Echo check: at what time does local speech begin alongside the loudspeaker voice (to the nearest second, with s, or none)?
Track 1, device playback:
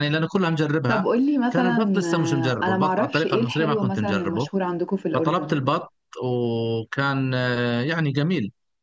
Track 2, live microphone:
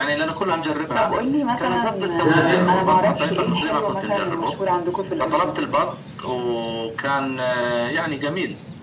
2 s